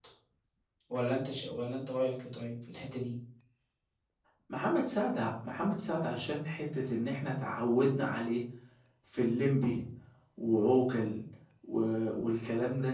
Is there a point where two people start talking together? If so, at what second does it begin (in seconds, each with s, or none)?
none